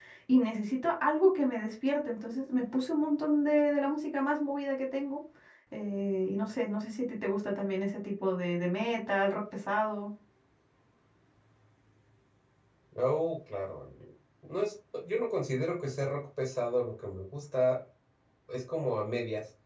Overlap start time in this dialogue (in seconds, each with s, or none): none